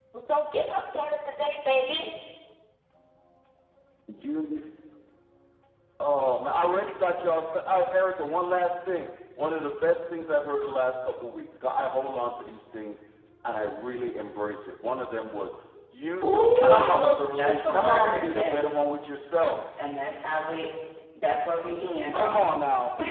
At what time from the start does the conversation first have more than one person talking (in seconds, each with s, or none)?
16.2 s